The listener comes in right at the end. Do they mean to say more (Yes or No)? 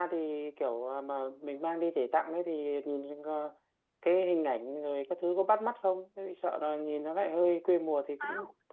Yes